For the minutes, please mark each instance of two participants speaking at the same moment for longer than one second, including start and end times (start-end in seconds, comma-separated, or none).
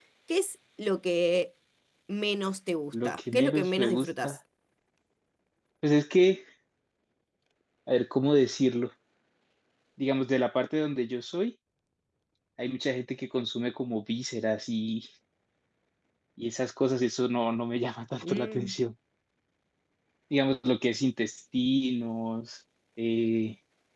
2.9-4.4